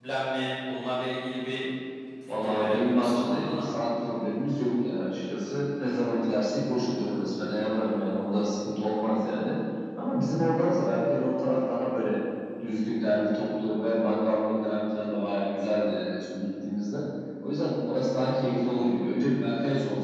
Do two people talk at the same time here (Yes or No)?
Yes